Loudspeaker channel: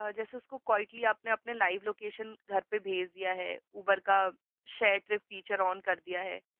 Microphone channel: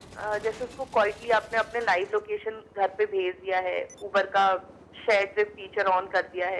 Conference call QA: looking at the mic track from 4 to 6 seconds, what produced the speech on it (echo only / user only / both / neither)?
echo only